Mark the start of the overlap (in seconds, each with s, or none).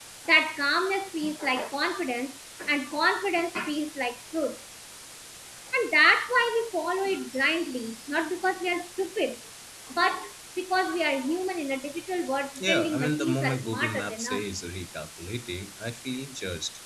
12.6 s